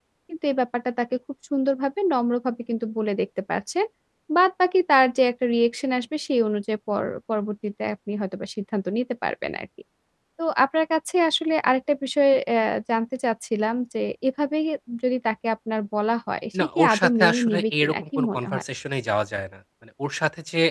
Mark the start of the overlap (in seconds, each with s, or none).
16.5 s